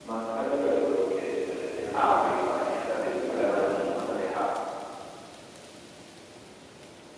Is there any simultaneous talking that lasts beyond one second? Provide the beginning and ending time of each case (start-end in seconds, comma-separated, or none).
2.7-4.0